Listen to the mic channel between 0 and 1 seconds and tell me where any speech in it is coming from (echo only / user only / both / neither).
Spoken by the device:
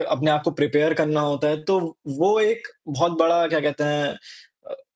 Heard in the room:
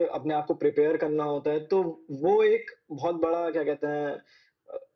echo only